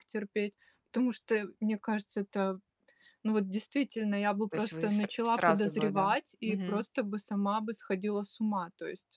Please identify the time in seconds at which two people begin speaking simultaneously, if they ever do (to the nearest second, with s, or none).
5 s